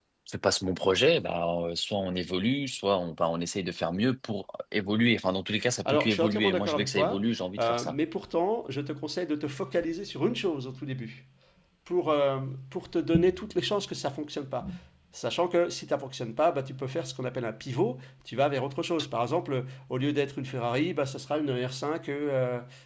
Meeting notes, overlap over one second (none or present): present